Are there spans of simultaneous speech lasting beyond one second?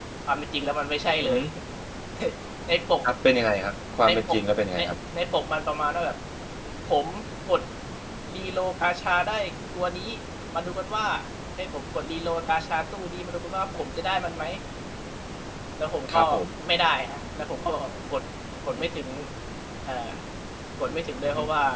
No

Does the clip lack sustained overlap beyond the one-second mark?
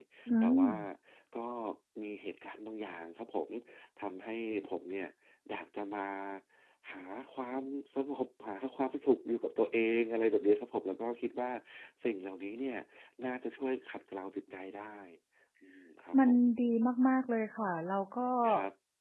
Yes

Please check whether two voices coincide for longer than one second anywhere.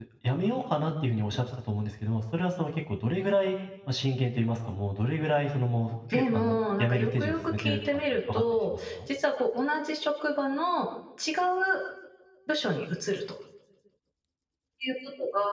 Yes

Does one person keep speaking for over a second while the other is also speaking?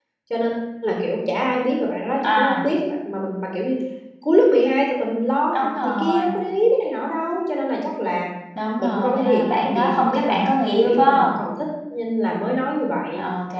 Yes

